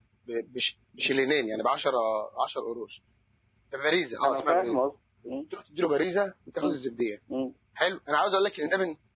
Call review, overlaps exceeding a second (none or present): none